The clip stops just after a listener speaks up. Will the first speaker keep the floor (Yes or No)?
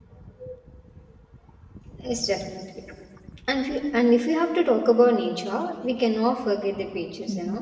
Yes